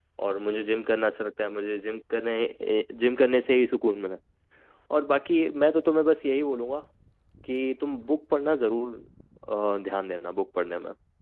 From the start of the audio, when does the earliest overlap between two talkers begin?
none

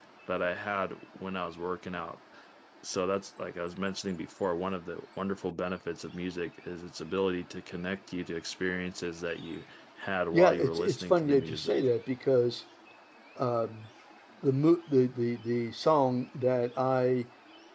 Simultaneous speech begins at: 10.3 s

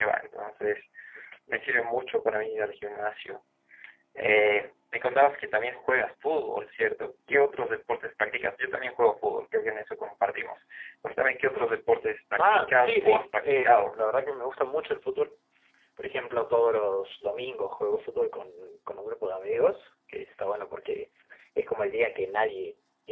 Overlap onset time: 12.3 s

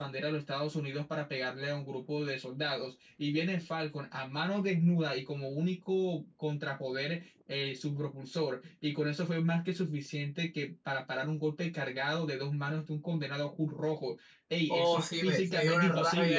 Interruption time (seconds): 14.7 s

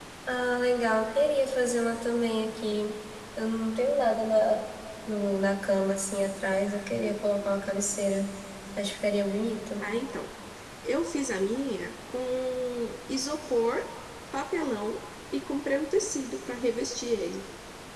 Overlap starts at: none

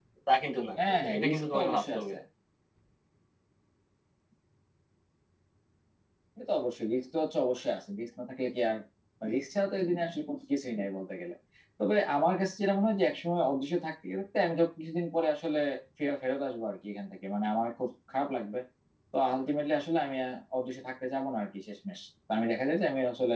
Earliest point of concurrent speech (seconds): 0.8 s

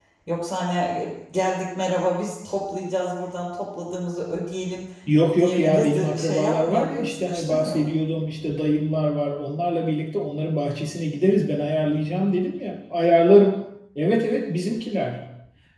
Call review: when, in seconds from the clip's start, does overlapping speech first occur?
5.4 s

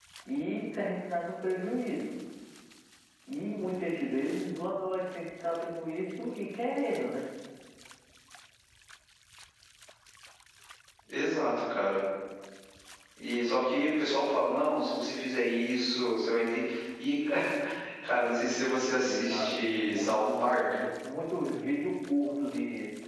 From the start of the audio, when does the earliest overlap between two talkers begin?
19.0 s

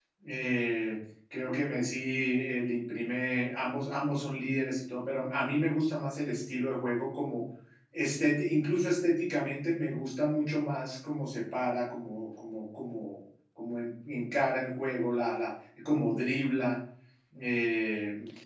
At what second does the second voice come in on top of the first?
none

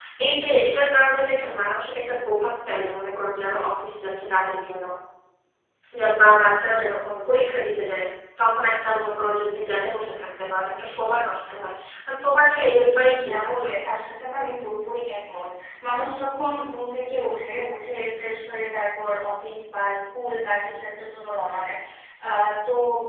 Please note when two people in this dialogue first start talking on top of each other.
12.5 s

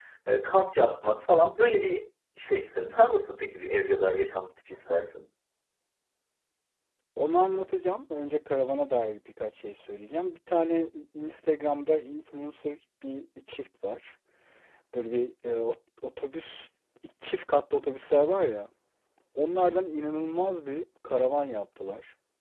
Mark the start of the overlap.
none

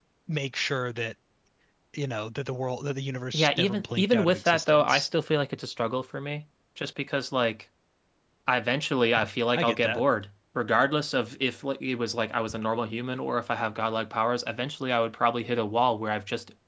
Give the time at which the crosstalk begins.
3.3 s

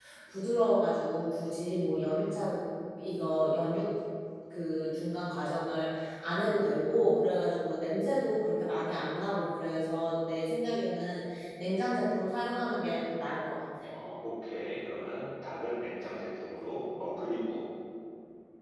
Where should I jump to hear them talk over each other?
none

